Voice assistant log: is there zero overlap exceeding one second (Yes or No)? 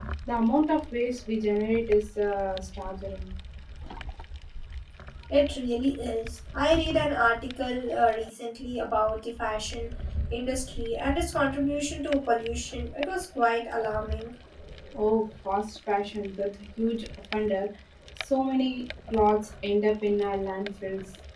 Yes